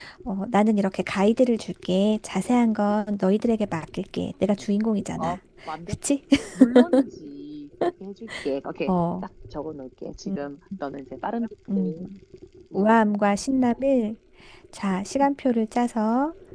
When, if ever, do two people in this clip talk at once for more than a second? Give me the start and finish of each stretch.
none

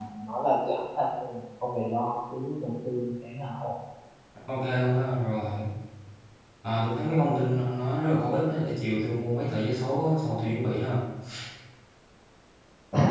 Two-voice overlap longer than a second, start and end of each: none

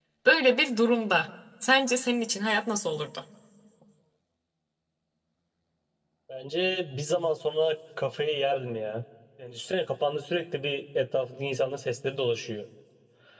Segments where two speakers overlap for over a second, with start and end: none

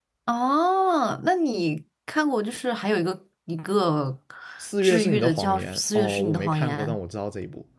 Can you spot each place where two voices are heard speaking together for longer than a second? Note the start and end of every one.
4.8-6.8

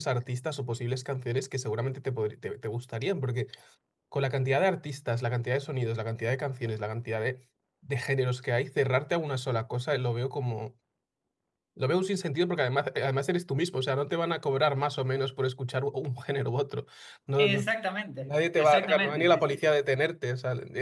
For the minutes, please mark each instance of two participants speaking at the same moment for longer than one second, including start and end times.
18.2-19.6

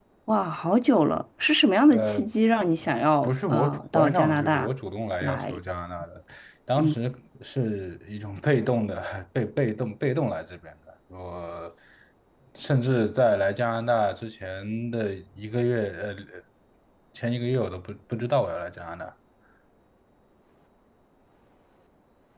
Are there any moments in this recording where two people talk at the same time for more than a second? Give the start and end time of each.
3.2-4.7

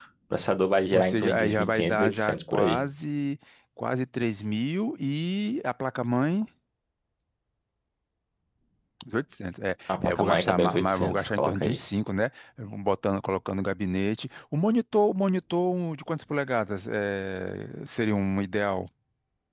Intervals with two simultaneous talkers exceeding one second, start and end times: 0.9-2.8, 9.9-11.8

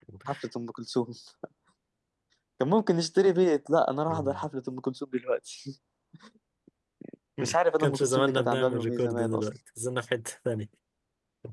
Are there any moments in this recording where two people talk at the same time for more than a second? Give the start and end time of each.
7.8-9.5

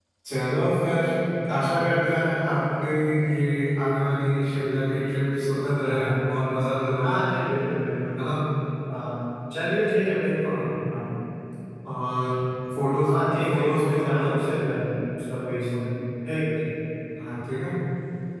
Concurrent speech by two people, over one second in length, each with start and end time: 13.1-14.5

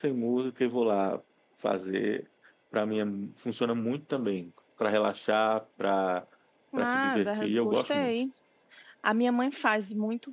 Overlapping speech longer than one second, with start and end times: 6.8-8.1

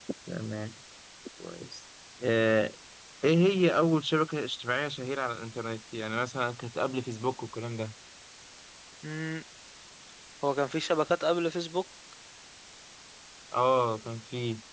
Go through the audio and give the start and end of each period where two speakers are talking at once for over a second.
none

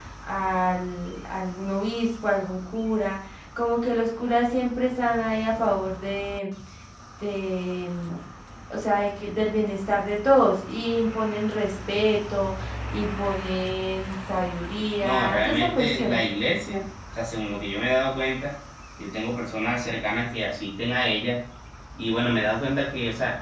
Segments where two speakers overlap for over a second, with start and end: 15.0-16.3

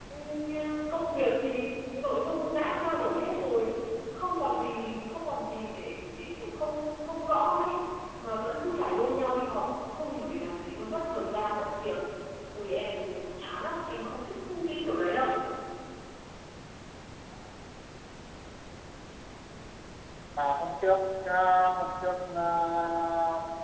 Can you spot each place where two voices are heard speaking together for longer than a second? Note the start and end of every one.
none

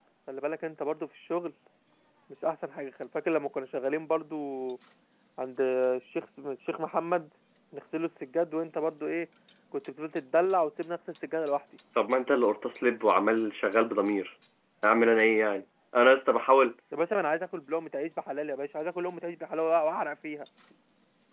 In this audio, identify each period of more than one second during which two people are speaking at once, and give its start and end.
none

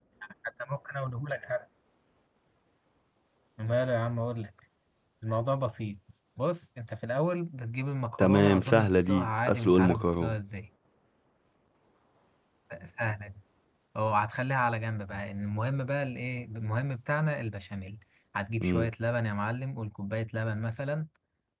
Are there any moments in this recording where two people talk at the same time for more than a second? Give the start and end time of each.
8.2-10.3

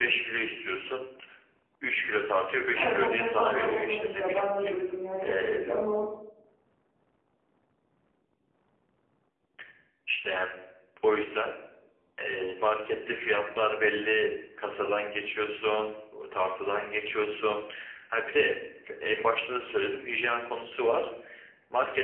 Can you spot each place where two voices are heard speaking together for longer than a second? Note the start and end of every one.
2.7-4.4

